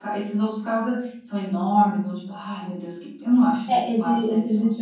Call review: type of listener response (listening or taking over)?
taking over